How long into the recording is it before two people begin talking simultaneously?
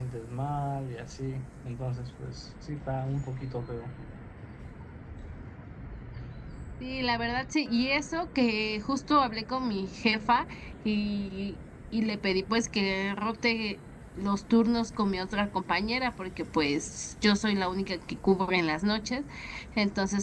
none

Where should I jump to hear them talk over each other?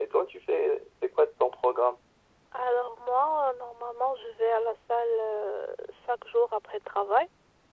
none

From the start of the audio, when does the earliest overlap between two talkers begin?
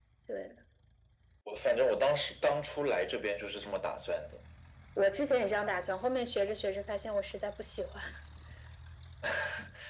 none

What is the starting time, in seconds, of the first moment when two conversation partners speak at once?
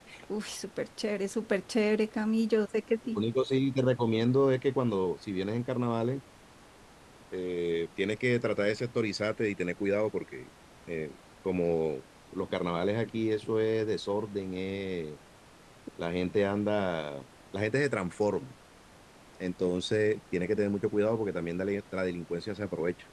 none

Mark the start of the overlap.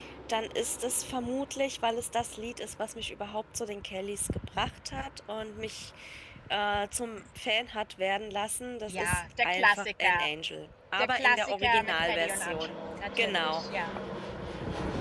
8.9 s

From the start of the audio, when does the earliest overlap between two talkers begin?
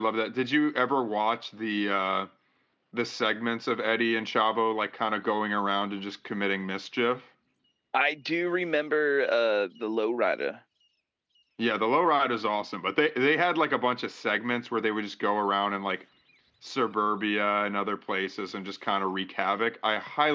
none

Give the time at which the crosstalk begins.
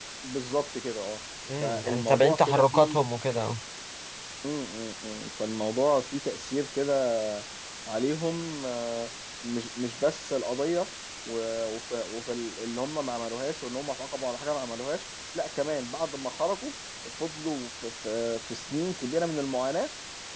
1.5 s

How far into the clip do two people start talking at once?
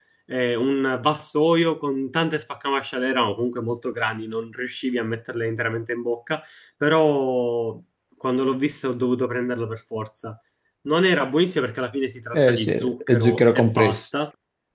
12.3 s

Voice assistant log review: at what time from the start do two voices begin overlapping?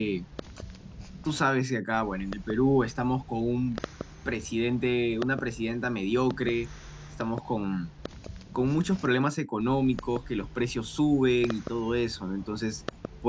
none

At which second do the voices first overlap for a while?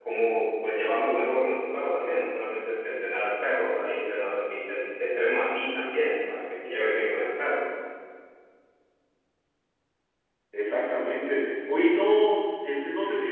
none

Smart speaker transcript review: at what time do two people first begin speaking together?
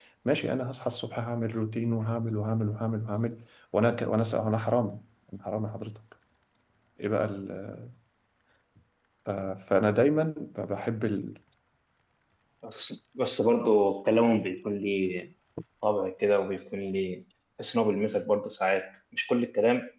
none

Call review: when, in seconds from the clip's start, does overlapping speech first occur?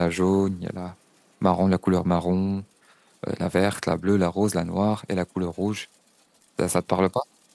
none

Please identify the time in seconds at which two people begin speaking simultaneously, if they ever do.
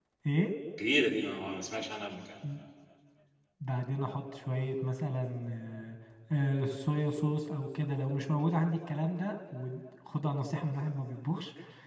none

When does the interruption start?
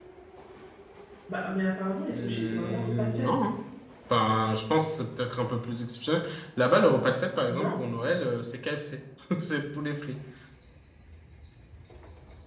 2.1 s

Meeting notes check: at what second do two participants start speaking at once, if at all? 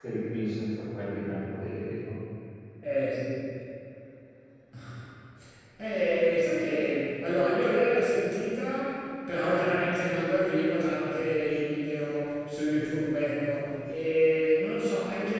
none

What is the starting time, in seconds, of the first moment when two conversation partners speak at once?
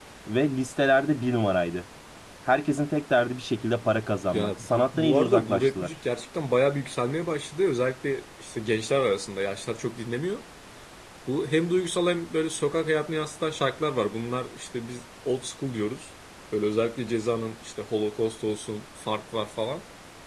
4.3 s

